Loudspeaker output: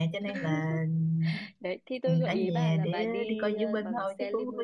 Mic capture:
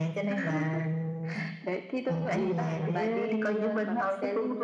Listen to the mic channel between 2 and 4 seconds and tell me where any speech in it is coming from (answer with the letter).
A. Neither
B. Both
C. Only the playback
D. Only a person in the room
C